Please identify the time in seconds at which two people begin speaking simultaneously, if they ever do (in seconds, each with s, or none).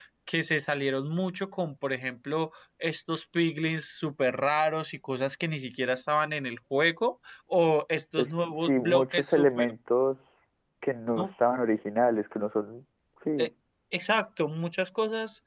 8.2 s